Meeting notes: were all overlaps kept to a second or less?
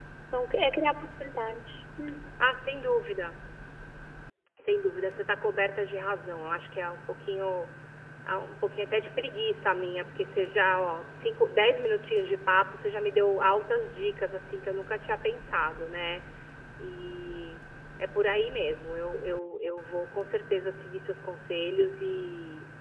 Yes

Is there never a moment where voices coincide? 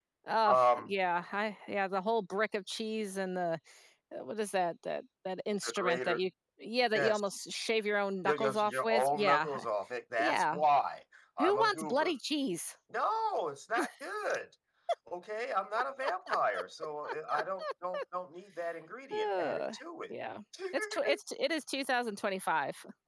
No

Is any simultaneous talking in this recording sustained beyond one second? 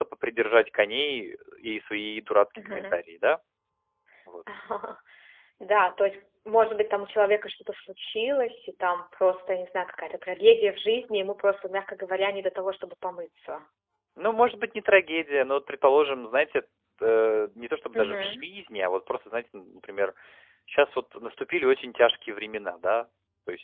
No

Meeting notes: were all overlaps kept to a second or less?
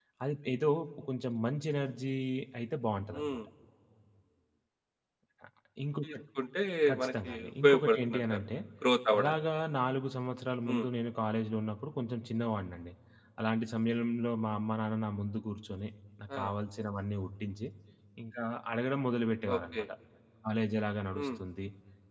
No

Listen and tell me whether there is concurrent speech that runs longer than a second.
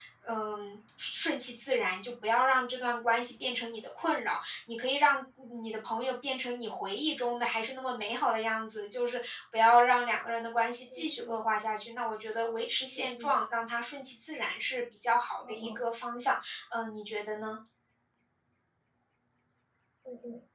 No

